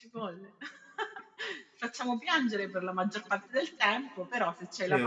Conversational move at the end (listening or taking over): taking over